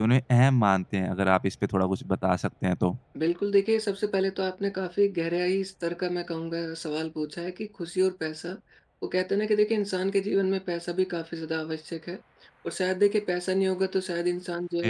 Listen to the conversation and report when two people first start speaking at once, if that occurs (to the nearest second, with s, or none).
none